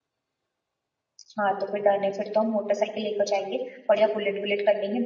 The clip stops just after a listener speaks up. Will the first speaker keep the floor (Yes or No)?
Yes